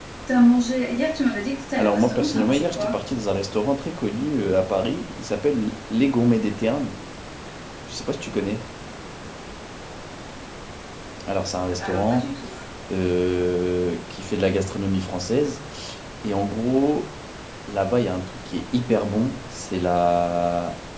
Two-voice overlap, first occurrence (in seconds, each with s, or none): 1.7 s